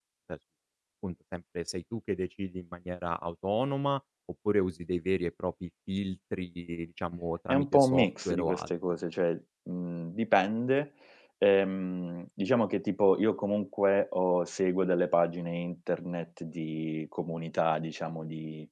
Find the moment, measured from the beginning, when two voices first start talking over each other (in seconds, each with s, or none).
7.5 s